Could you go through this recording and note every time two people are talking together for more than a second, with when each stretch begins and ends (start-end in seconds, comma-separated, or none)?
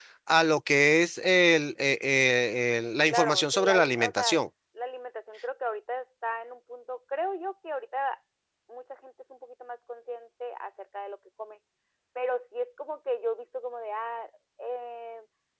3.1-4.4